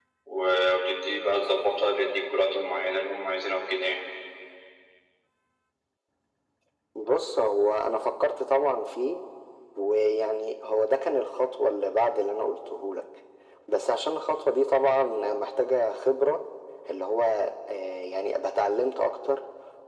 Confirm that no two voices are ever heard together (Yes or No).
Yes